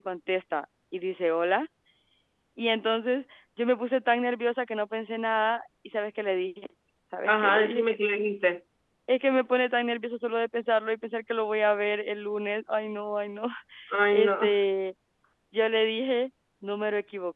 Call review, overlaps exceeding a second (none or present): none